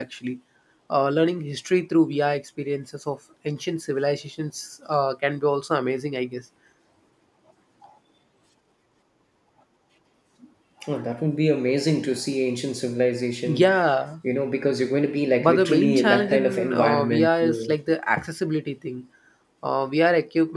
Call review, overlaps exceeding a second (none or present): present